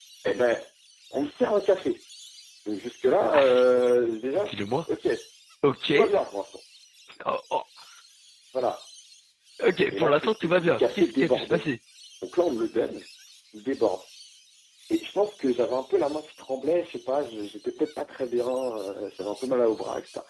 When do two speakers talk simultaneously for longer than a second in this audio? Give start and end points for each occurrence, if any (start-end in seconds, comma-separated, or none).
9.9-11.6